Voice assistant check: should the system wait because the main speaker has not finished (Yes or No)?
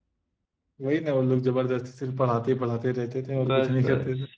No